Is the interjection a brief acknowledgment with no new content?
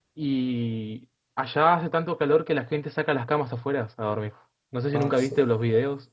Yes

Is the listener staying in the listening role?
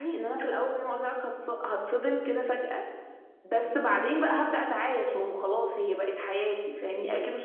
No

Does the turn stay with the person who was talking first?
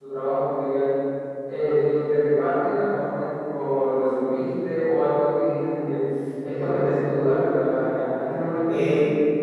No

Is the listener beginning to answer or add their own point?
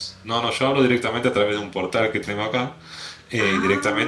No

